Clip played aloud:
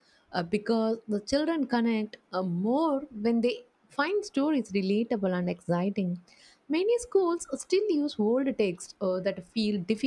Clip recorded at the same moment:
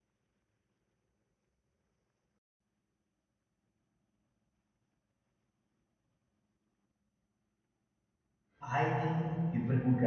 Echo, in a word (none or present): none